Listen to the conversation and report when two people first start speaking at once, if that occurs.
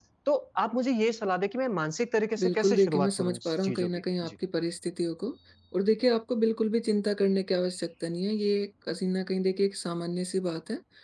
2.4 s

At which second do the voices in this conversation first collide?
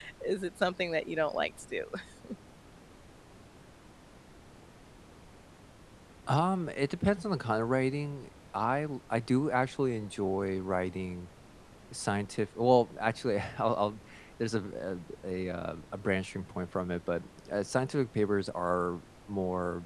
none

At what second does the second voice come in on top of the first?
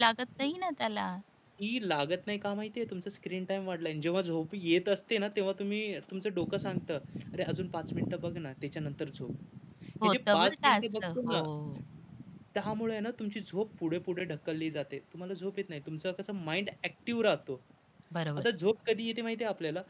10.0 s

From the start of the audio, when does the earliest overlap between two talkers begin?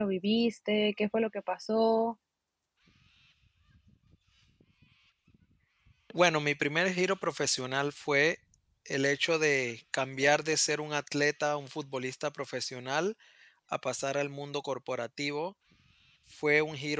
none

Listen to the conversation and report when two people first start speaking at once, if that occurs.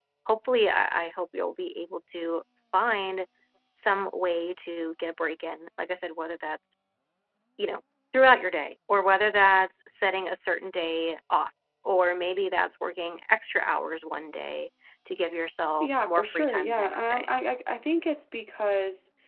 15.8 s

